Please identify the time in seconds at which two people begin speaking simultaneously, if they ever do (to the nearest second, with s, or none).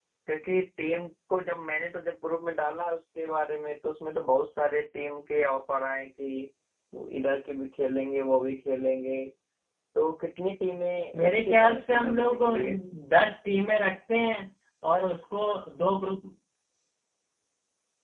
11 s